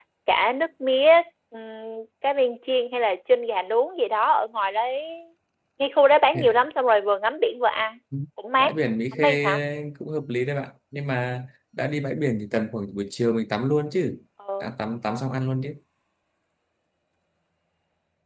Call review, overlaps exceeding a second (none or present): none